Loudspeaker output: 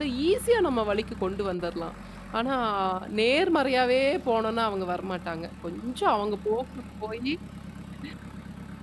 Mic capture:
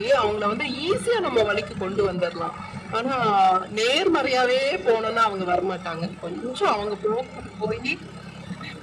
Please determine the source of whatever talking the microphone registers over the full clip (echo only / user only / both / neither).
echo only